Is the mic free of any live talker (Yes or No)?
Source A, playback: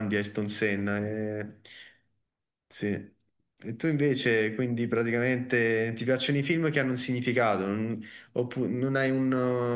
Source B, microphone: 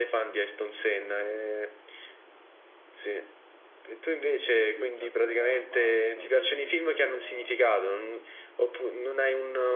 No